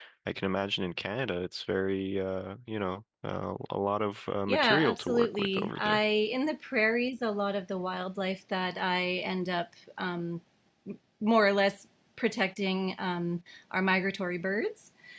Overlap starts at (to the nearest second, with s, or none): 4 s